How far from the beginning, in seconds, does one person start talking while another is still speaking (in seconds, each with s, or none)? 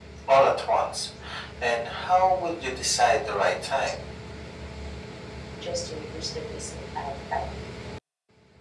none